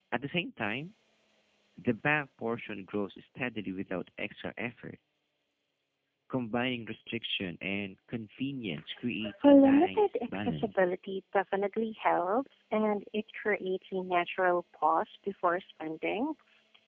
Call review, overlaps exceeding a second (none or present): present